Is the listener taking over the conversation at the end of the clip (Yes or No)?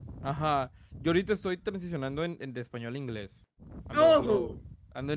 No